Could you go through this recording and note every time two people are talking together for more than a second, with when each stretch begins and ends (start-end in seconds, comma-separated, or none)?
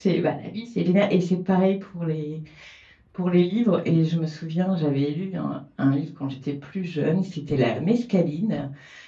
none